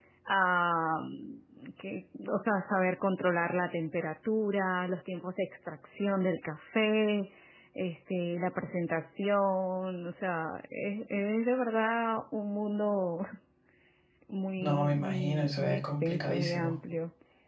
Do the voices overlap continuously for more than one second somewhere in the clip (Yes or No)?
Yes